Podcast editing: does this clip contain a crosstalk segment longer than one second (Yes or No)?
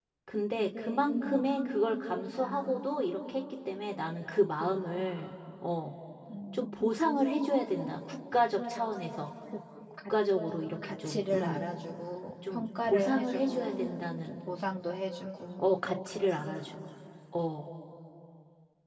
Yes